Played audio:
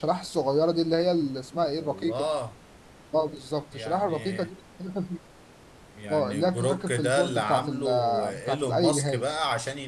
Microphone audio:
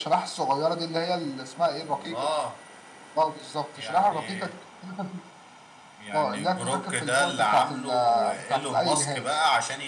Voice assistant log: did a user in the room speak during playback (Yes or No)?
No